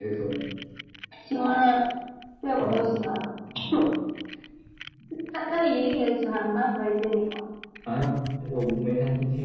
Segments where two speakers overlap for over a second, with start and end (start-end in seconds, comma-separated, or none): none